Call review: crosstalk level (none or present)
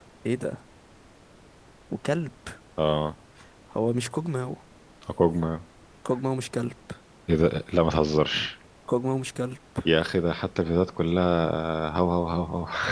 none